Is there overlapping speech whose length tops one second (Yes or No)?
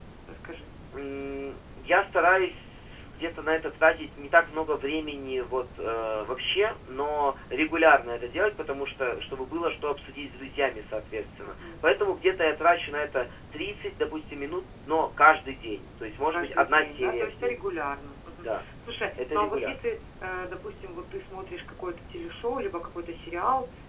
Yes